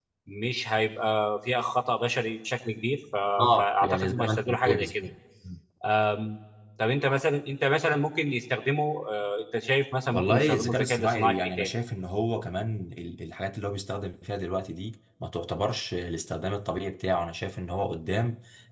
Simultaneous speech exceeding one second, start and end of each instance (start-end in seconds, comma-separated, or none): 3.6-5.1, 10.1-11.7